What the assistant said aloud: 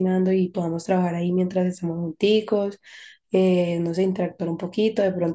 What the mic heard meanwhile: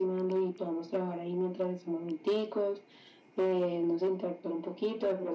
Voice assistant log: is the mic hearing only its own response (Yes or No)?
Yes